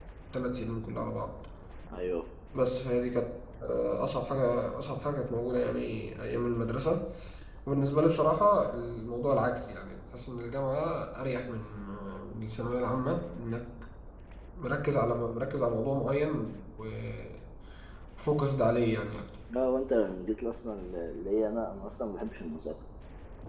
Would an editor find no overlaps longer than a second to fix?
Yes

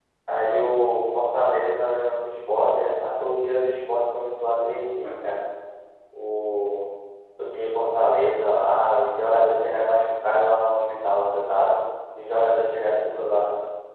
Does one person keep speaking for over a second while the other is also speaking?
No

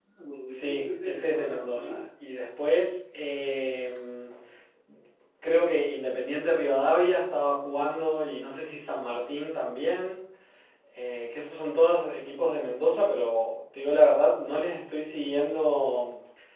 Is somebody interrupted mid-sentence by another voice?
Yes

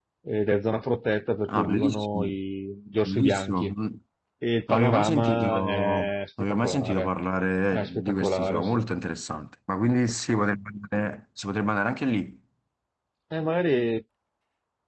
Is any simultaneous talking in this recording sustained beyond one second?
Yes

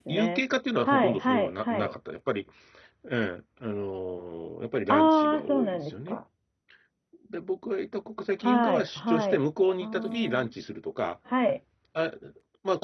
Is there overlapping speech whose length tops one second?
Yes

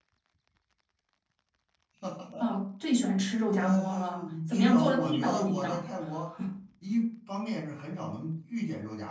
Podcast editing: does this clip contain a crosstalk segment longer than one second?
Yes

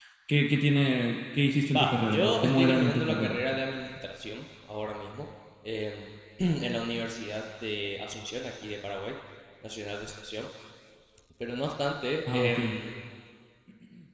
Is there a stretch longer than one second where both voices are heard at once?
Yes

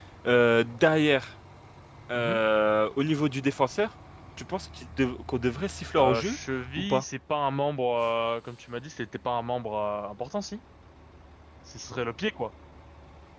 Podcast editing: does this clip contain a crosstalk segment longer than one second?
No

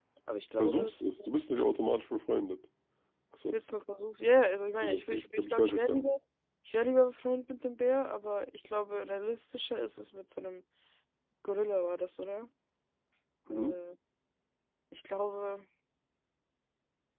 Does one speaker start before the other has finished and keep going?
Yes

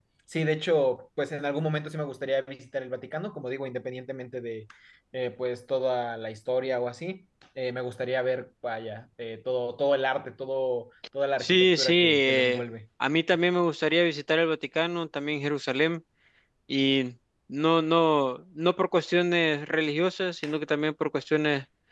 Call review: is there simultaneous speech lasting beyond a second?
Yes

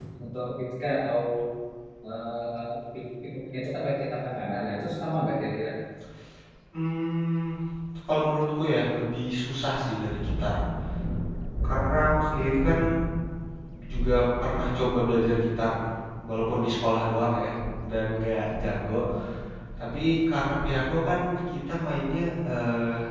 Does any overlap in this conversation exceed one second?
No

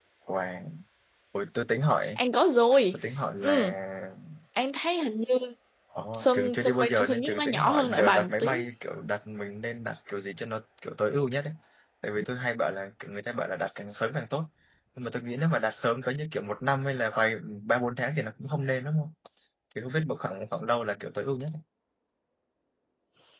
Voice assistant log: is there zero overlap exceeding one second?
No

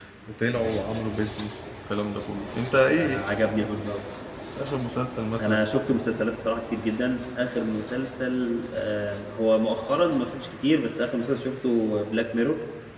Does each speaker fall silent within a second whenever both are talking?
Yes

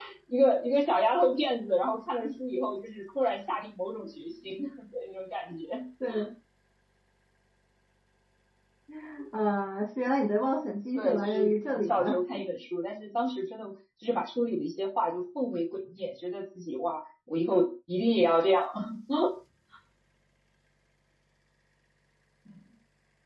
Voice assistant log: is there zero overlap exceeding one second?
No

